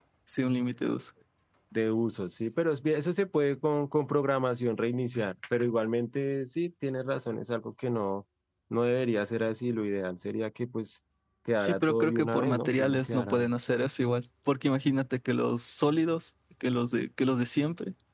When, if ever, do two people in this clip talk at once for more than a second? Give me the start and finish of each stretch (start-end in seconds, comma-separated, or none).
11.6-13.5